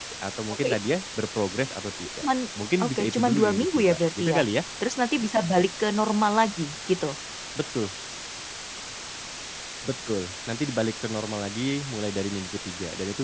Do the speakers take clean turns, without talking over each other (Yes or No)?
No